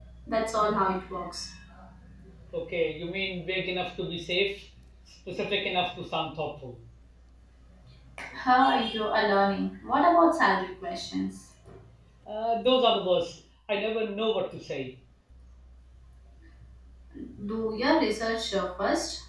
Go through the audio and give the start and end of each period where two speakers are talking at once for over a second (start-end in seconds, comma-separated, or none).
none